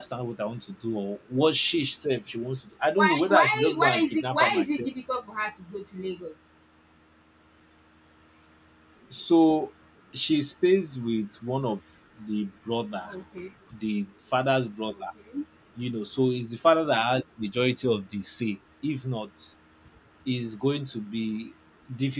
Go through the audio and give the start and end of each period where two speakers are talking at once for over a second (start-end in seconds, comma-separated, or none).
2.9-4.9